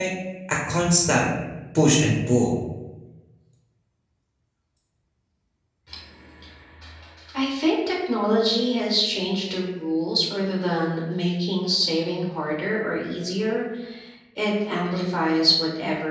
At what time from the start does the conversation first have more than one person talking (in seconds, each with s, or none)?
none